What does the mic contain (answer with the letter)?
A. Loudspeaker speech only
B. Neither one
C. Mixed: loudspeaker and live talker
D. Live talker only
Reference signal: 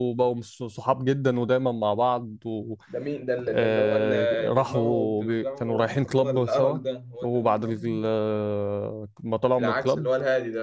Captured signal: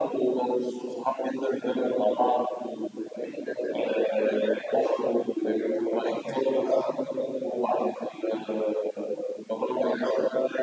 A